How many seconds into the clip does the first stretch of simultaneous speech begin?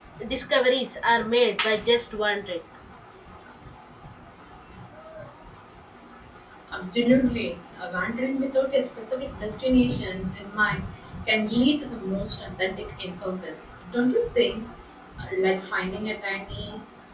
none

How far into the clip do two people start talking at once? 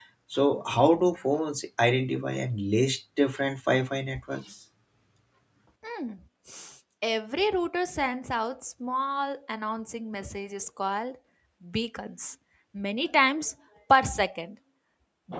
none

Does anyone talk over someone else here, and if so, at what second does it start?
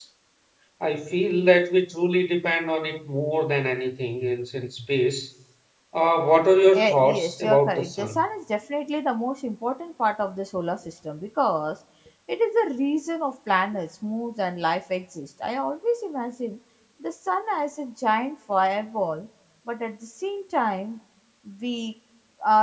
6.8 s

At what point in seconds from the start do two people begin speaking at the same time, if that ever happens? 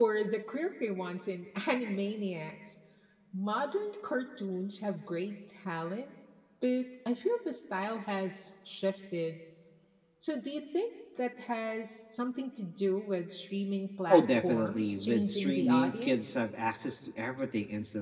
14.1 s

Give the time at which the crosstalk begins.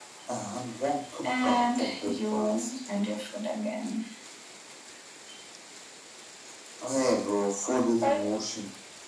1.2 s

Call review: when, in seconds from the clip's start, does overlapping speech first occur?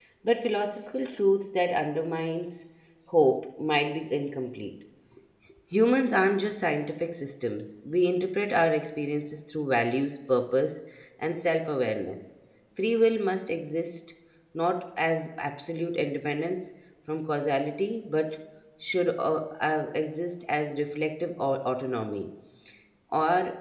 none

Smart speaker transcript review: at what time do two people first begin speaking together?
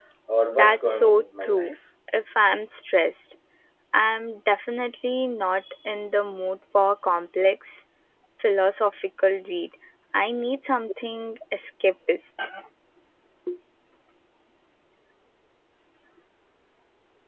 0.5 s

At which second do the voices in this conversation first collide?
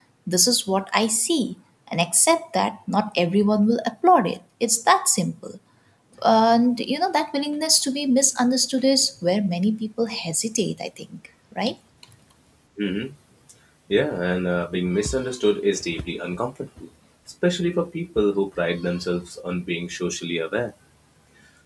none

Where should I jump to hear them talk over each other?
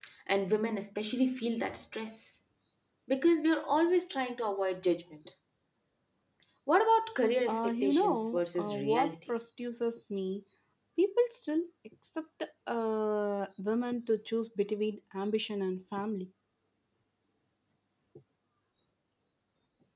7.5 s

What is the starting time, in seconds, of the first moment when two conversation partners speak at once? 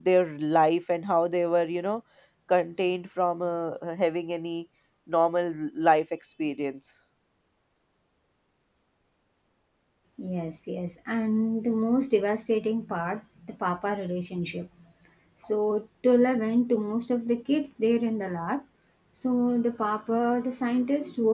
none

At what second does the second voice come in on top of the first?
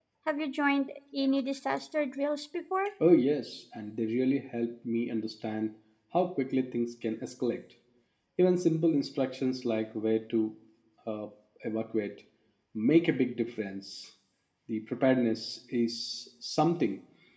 none

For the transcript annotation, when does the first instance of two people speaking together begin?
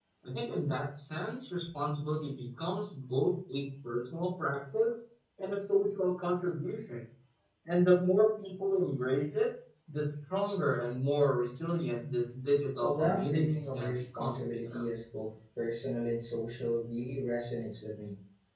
12.8 s

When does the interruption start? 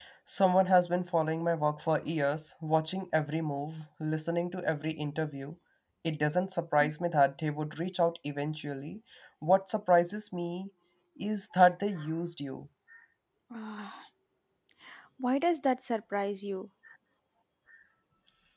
none

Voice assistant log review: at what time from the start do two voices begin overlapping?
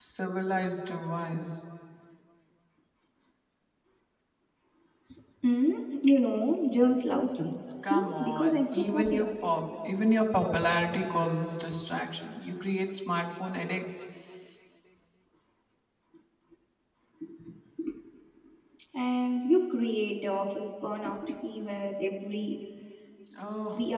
7.8 s

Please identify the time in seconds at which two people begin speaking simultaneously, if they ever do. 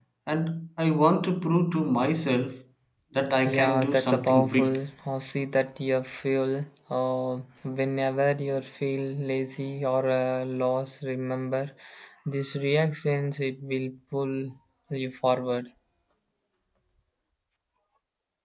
3.5 s

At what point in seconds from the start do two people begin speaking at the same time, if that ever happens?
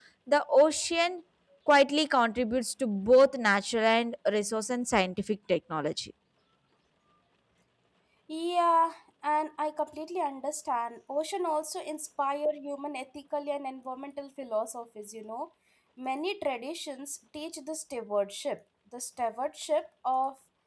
none

